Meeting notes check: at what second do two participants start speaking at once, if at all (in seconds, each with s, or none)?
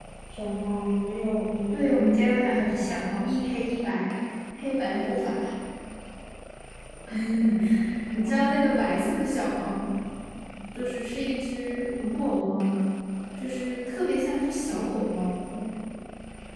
1.7 s